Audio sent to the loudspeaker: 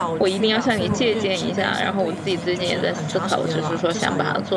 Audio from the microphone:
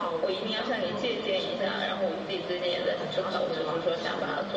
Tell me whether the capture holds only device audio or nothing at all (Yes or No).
Yes